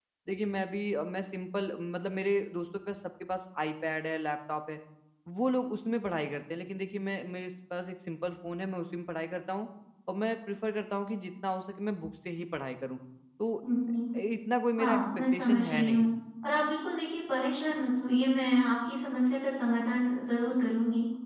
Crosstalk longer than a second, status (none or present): present